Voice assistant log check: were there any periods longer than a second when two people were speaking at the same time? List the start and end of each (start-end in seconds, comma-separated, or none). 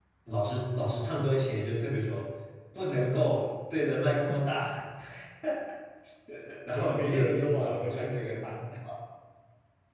6.8-8.3